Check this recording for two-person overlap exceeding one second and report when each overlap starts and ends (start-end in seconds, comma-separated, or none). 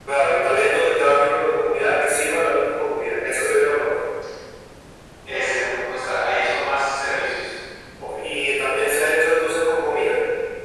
none